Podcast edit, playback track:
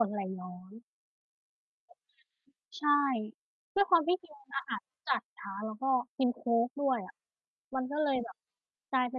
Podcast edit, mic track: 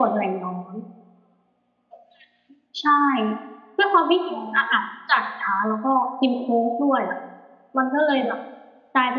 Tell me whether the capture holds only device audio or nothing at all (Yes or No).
No